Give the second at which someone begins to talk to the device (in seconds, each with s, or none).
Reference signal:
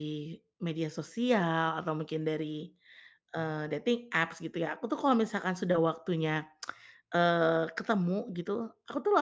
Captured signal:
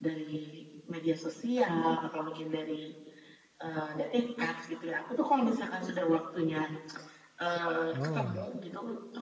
7.9 s